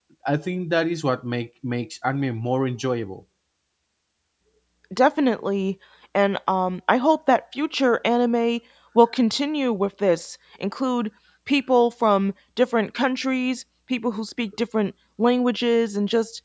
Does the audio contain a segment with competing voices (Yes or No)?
No